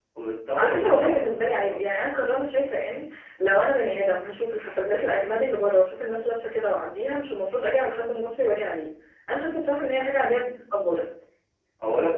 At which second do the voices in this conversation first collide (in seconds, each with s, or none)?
0.6 s